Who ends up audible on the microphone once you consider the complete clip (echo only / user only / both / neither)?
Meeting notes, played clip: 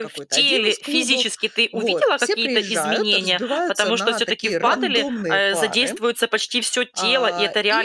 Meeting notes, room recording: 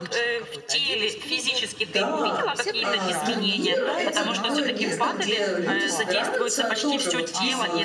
both